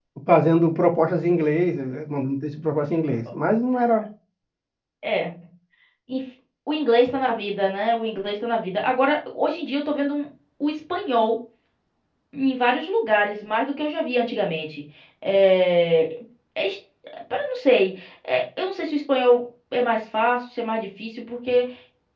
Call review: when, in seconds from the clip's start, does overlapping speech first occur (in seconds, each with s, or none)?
none